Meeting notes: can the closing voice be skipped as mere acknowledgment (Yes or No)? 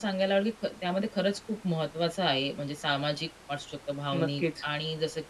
Yes